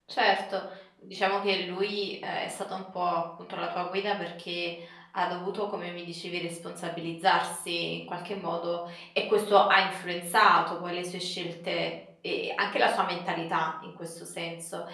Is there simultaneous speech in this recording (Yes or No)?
No